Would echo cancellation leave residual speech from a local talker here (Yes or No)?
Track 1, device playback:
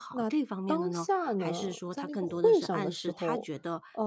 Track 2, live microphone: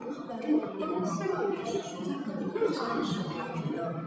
Yes